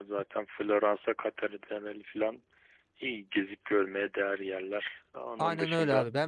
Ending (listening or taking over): taking over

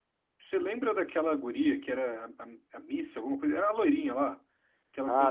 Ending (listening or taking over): taking over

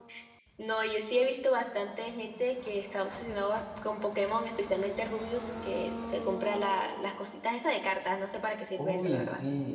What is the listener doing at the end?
taking over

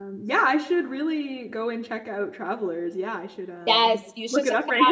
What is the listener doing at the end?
taking over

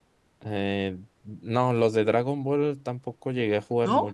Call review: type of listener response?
taking over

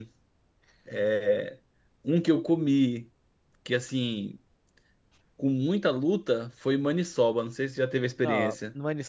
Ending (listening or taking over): taking over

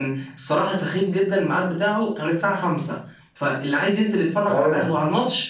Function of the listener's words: listening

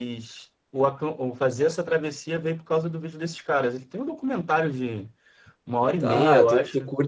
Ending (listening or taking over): taking over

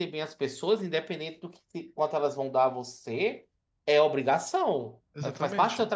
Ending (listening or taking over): listening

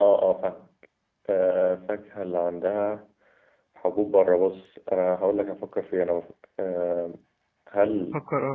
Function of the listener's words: listening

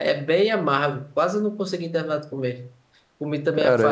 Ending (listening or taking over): listening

